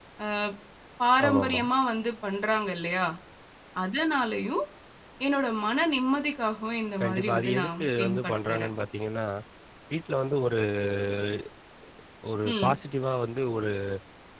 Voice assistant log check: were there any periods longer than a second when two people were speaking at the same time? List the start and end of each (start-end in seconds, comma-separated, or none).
7.0-8.7